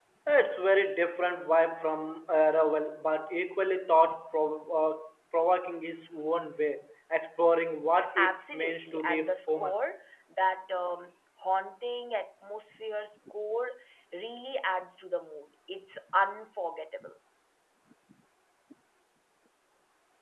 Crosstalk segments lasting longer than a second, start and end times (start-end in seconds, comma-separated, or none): 8.2-9.8